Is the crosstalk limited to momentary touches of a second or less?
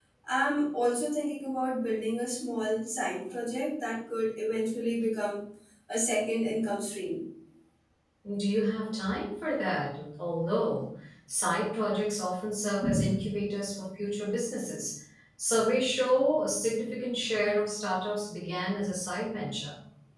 Yes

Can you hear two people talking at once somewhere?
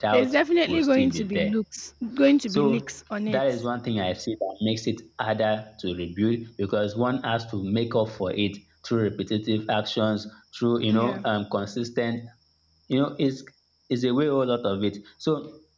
Yes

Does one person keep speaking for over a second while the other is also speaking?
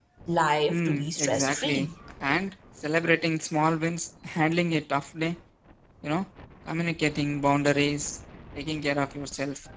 Yes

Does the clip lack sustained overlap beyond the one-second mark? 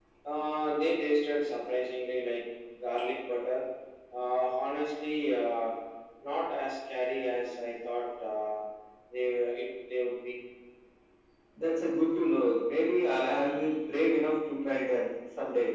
Yes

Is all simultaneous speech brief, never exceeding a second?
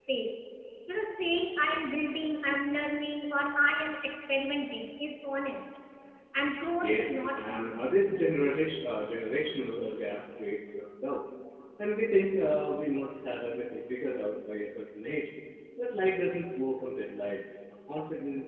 No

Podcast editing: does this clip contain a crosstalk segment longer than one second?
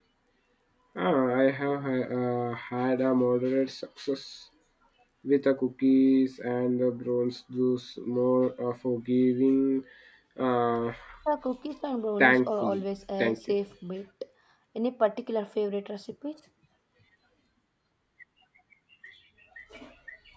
Yes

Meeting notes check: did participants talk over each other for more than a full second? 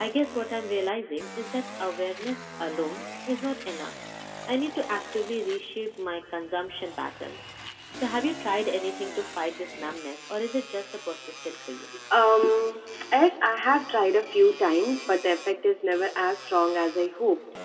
No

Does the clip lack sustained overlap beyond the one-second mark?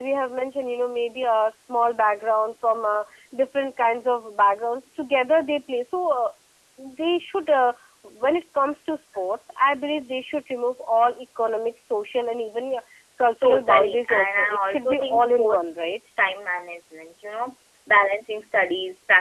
No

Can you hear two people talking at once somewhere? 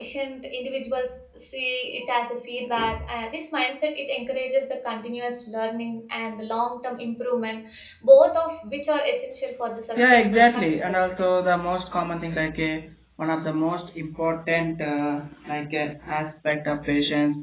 Yes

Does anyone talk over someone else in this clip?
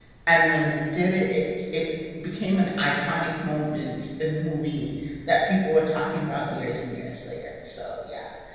No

